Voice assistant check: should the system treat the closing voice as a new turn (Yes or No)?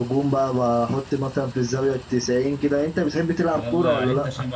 Yes